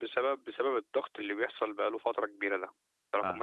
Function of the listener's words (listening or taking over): listening